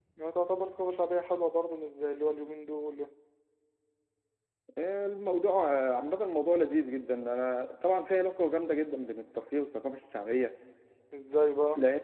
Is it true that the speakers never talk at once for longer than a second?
Yes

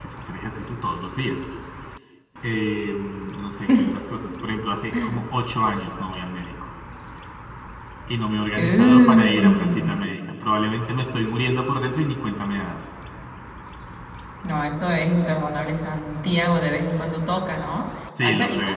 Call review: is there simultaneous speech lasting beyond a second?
Yes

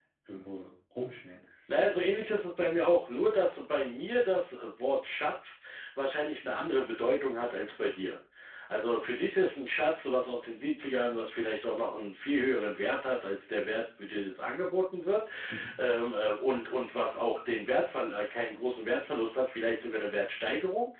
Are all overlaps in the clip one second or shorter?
Yes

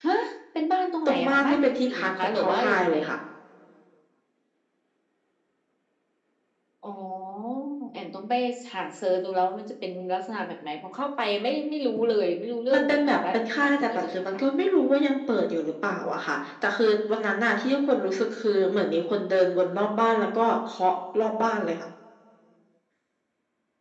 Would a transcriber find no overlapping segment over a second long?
No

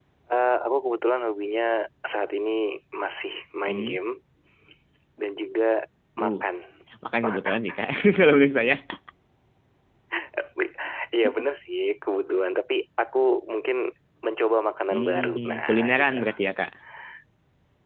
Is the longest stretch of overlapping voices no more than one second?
No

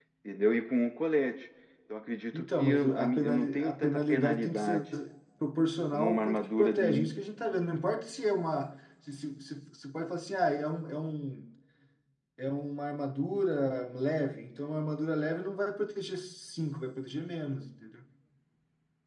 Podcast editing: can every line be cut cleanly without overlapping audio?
No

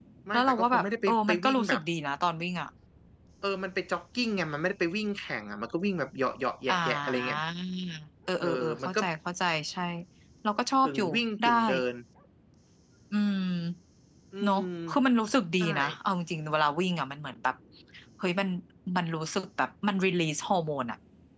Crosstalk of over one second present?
Yes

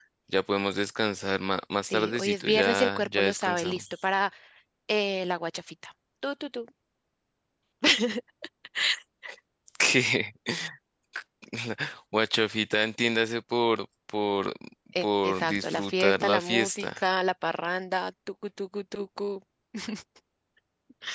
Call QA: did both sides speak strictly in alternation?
No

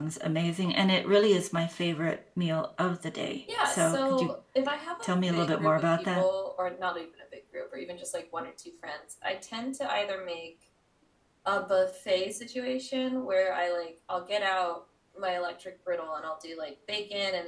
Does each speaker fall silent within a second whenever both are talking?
No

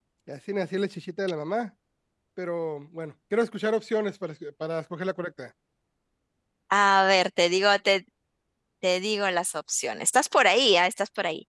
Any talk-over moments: No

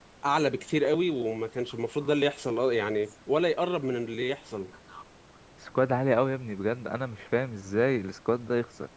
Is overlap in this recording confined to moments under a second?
Yes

